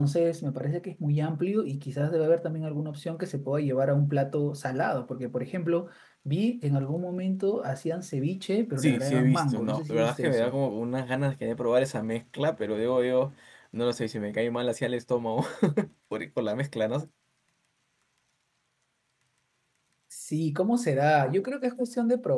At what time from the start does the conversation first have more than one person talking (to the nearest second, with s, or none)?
9 s